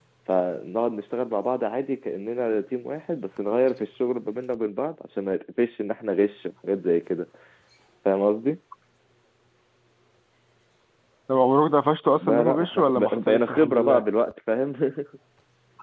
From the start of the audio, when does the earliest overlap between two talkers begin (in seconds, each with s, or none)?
12.2 s